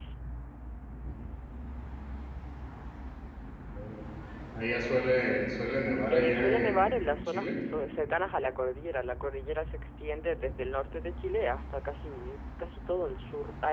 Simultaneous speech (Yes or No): Yes